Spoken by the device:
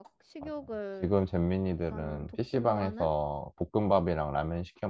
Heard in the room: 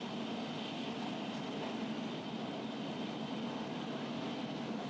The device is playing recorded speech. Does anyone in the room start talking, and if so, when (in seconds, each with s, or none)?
none